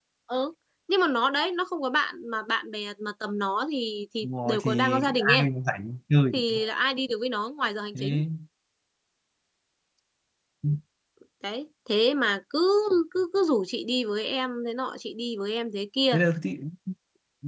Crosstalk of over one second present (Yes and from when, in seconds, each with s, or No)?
Yes, from 4.2 s